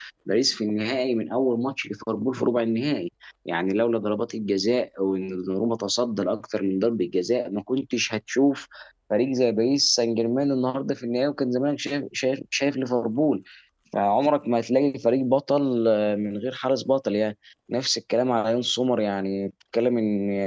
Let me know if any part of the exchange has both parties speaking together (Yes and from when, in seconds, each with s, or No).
No